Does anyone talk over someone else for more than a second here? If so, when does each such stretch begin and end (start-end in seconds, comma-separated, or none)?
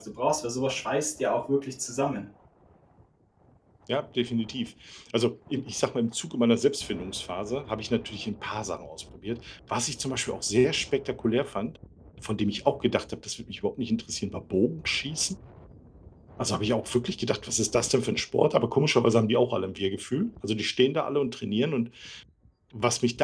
none